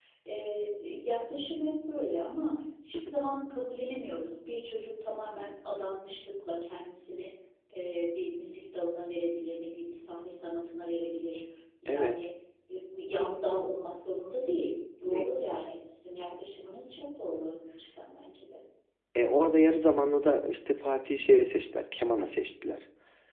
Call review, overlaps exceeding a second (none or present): none